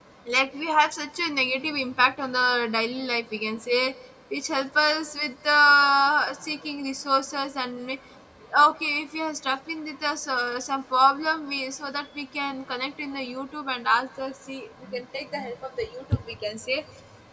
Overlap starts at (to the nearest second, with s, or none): none